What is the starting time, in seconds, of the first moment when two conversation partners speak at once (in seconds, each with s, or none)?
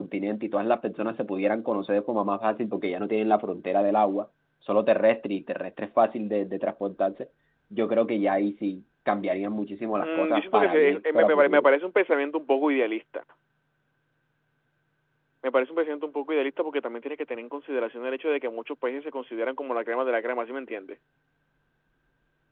10.0 s